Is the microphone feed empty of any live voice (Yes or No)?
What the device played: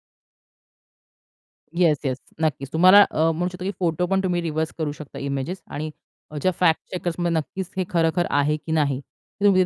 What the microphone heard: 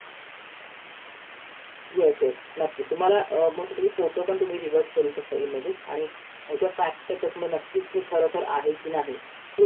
Yes